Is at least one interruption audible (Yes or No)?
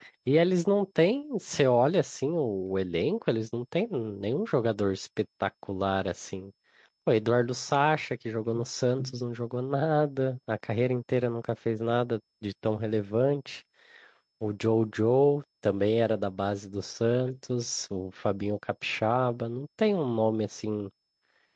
No